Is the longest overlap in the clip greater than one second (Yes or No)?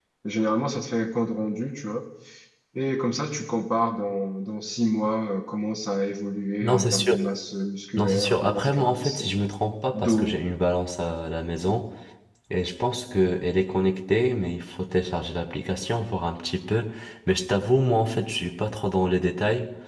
Yes